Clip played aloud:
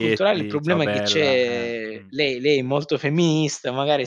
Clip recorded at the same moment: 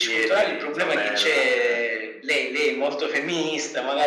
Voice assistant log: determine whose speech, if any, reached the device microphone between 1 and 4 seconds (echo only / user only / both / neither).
echo only